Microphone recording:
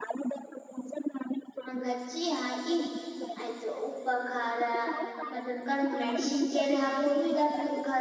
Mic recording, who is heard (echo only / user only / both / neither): both